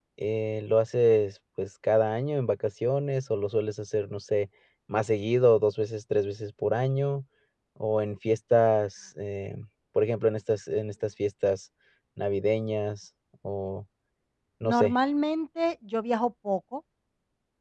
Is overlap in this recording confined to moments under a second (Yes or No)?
Yes